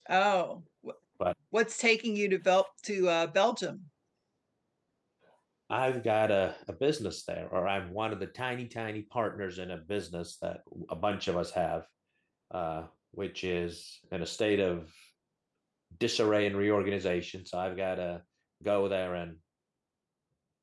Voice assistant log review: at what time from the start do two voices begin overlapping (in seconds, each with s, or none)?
none